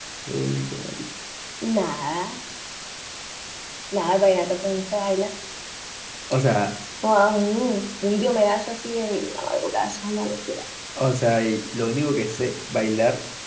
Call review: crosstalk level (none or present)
none